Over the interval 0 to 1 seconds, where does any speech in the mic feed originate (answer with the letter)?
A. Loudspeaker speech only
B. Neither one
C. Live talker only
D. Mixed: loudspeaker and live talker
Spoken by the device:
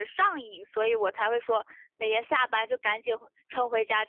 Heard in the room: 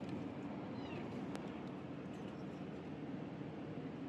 B